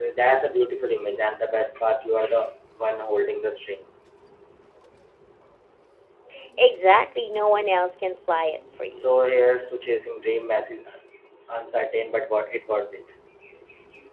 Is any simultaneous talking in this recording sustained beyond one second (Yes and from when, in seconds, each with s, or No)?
No